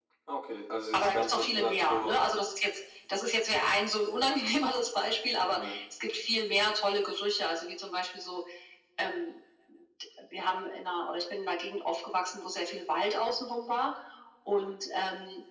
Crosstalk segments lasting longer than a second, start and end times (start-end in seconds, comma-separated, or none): 0.9-2.1